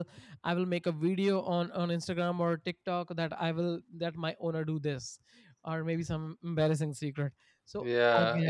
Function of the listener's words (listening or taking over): taking over